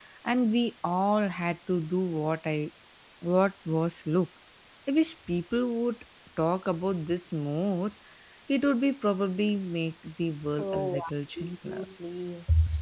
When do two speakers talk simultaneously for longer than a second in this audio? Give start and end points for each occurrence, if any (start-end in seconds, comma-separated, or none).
10.6-11.8